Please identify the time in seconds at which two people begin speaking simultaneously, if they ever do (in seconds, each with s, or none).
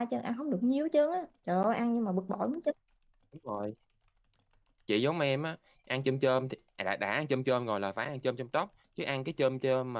none